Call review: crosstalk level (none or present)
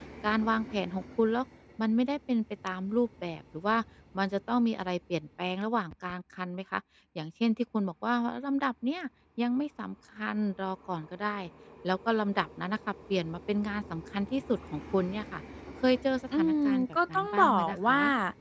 present